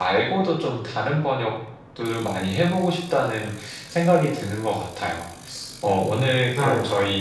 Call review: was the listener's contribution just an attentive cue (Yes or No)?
Yes